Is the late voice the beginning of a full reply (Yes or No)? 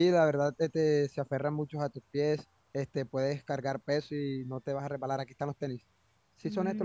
Yes